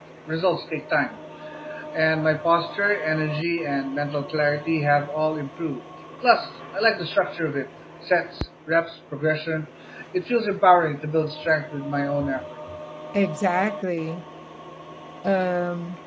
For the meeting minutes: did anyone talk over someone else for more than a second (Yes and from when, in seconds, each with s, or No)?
No